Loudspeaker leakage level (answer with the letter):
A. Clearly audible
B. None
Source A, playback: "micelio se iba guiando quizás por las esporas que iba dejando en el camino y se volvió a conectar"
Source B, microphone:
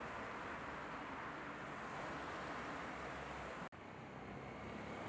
B